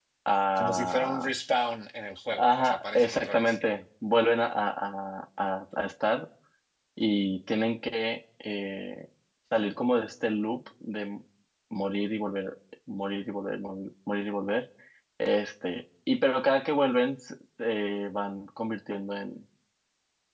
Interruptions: present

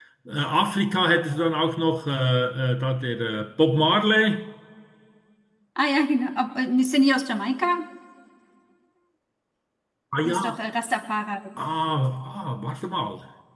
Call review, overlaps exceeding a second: none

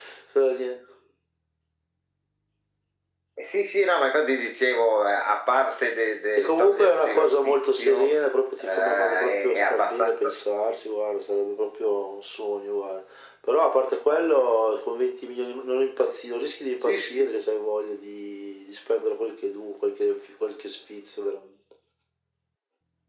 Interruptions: present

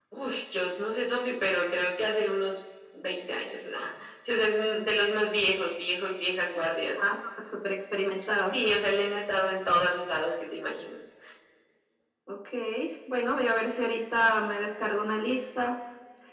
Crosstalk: none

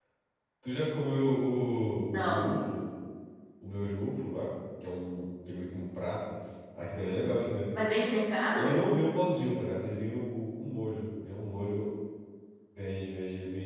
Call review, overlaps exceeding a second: none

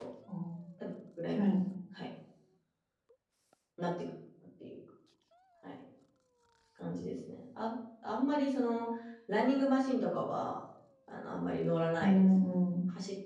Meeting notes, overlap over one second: none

